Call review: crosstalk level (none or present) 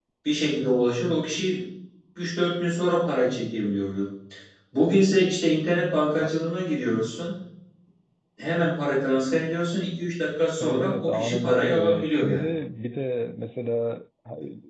present